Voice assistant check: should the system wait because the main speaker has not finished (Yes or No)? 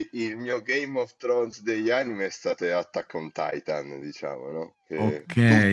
Yes